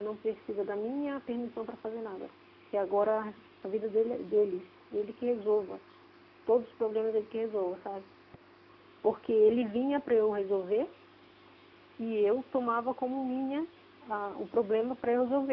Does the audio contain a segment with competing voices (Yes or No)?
No